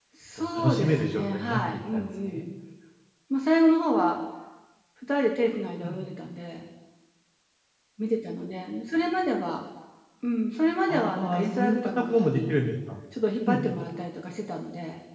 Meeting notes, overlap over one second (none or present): present